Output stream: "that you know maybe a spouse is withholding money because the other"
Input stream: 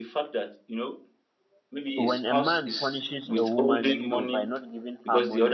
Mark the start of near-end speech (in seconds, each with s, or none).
2.0 s